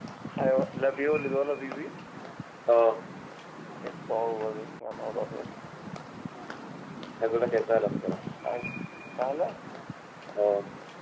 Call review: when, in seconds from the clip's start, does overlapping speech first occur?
none

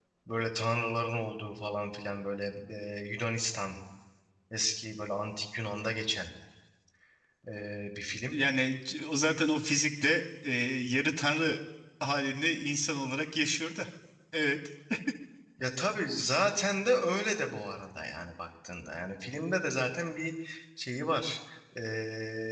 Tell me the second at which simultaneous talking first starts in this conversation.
none

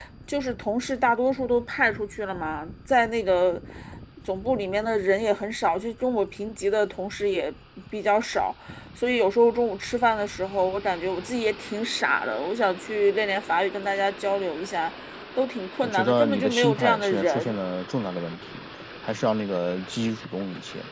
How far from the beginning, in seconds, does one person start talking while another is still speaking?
15.8 s

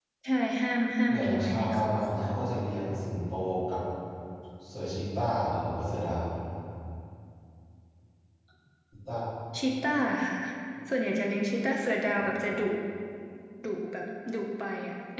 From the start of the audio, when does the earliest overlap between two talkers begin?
1.1 s

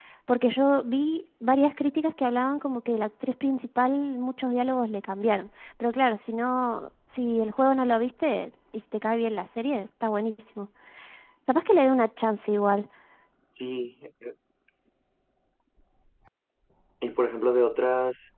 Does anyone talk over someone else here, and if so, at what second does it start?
none

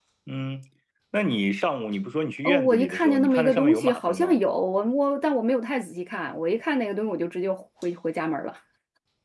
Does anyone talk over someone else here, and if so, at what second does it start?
2.4 s

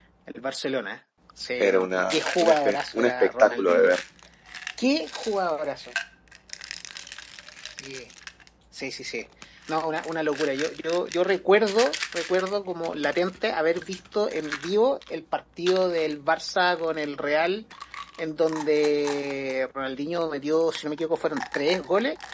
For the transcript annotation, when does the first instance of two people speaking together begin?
1.6 s

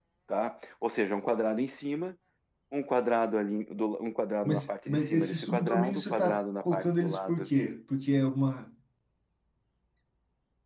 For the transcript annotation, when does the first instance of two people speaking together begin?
4.4 s

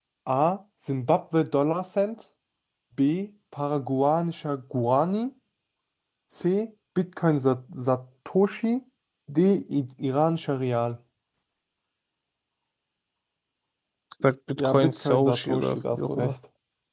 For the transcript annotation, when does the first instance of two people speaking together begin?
14.6 s

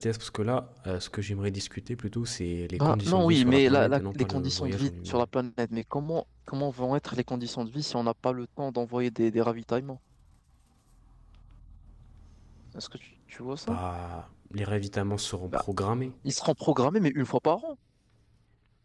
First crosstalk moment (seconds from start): 2.8 s

